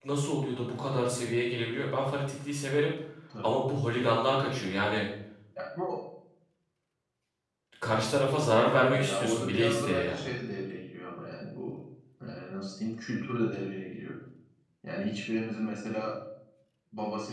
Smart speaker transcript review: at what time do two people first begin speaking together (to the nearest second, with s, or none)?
9 s